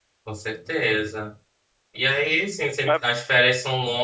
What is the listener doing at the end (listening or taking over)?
listening